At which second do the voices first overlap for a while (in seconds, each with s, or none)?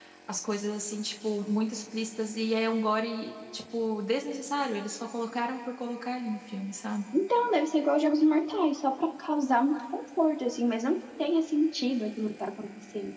none